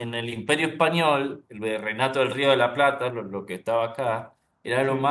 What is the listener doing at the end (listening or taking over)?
listening